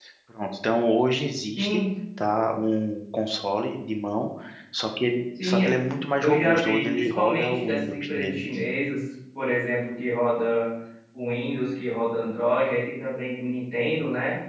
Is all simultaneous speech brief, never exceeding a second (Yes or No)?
No